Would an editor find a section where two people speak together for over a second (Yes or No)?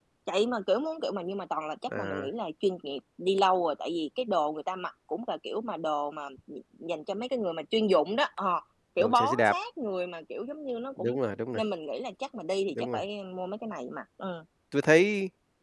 No